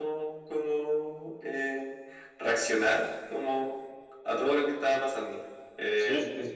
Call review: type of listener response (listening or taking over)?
taking over